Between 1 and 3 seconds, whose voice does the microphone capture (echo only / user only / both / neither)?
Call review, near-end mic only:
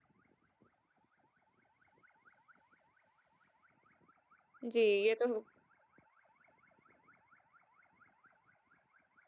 neither